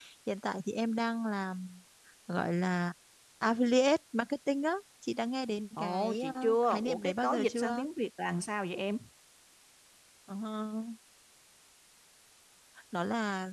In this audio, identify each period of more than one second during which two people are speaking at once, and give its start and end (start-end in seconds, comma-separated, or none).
5.8-7.9